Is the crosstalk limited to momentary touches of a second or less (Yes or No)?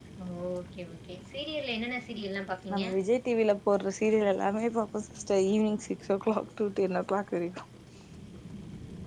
Yes